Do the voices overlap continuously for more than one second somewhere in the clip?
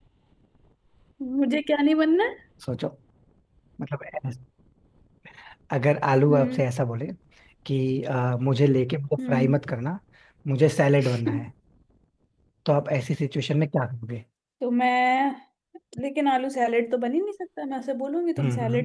No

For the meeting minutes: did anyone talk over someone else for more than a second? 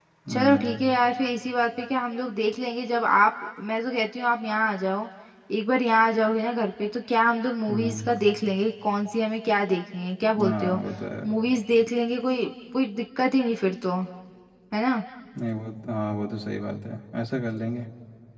No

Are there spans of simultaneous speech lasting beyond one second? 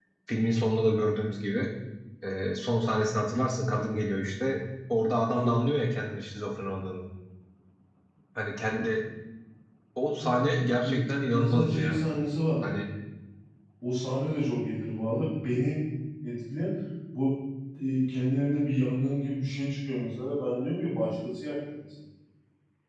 Yes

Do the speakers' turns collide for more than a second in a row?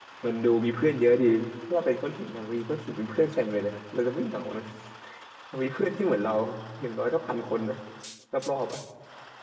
No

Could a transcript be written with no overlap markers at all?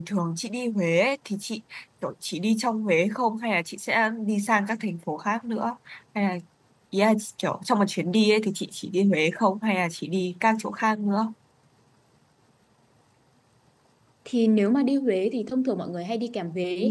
Yes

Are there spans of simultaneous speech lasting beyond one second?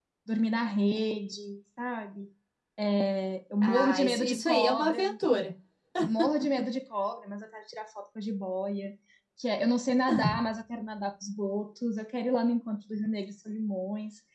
Yes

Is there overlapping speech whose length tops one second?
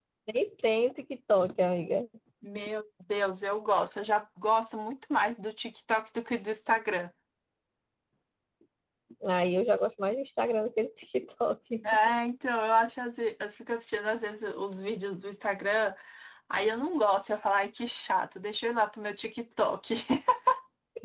No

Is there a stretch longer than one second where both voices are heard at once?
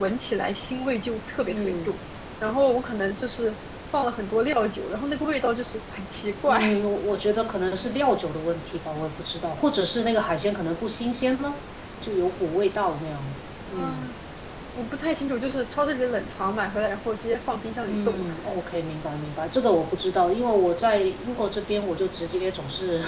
No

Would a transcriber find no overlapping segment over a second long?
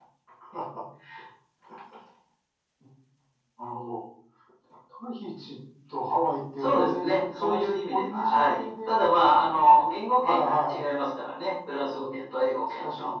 No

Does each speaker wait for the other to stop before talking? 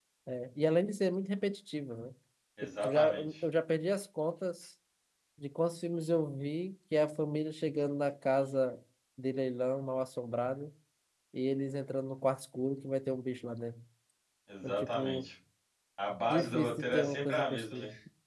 No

